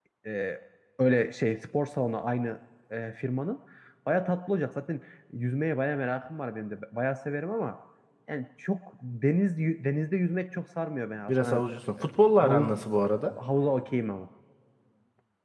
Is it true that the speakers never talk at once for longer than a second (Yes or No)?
Yes